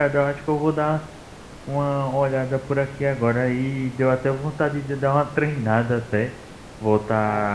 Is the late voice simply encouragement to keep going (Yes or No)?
Yes